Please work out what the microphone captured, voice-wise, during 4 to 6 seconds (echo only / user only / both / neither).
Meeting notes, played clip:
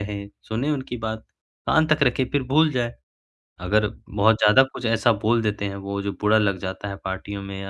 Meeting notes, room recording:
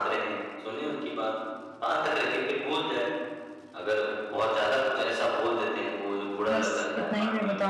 echo only